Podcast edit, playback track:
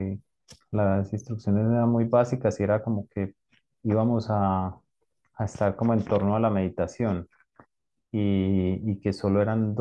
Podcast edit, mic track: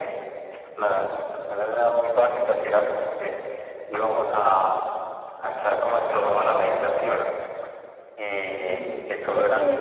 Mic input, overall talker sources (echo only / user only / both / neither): both